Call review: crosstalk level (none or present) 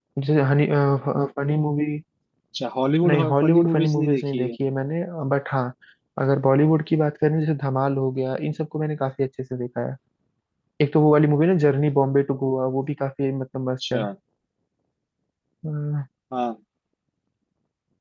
present